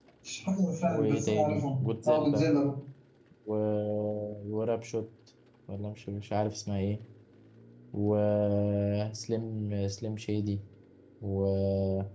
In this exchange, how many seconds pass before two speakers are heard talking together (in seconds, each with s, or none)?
0.8 s